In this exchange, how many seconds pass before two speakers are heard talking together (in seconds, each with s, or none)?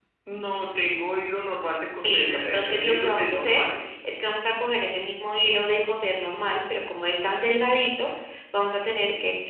2.0 s